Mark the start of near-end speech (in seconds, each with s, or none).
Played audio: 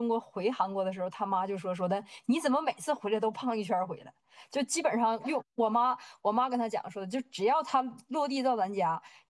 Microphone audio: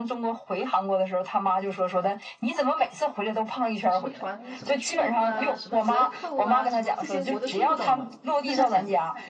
3.9 s